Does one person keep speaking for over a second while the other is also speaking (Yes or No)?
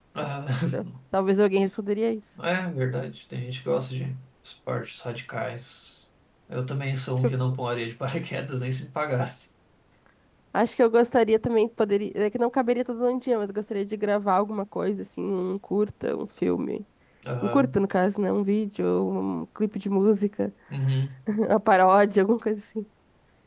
No